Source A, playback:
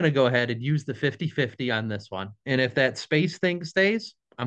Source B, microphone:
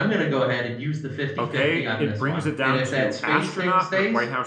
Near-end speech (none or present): present